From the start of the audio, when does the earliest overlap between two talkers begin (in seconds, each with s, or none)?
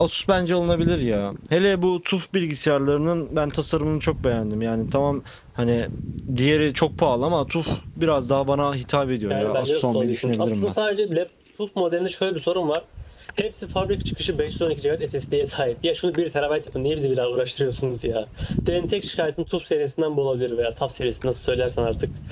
9.3 s